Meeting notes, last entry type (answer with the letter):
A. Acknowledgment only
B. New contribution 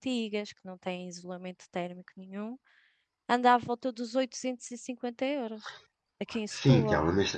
B